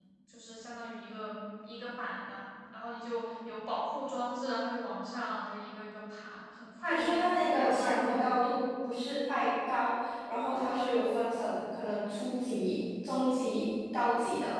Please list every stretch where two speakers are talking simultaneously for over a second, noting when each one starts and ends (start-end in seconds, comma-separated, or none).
6.9-8.2